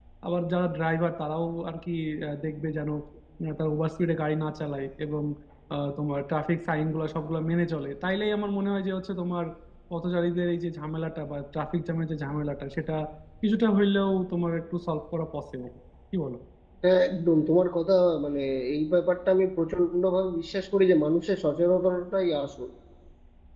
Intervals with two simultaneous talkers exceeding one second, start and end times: none

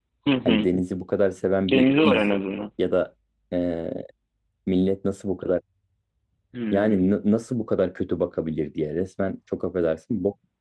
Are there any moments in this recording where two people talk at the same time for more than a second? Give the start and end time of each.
none

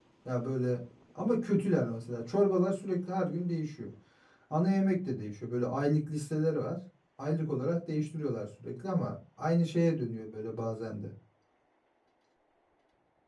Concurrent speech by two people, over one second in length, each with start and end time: none

